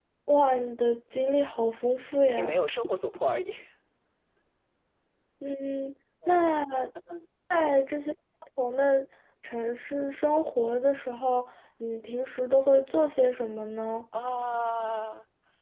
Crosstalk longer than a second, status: none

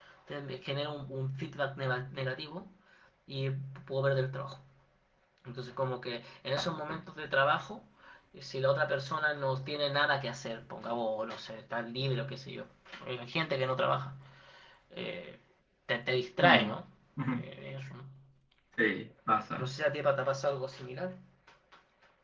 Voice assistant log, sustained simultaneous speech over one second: none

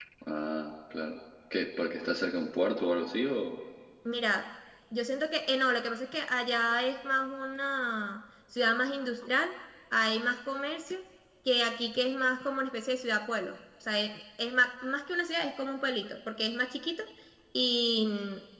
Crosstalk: none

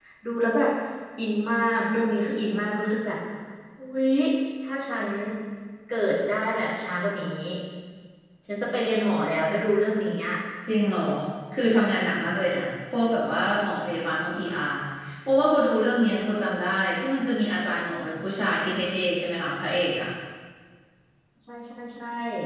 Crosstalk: none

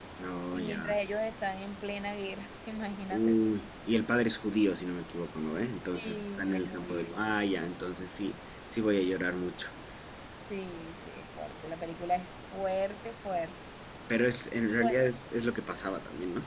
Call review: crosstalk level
present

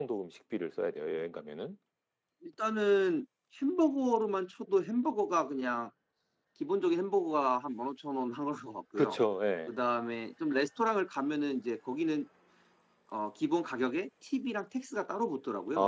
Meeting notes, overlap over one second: none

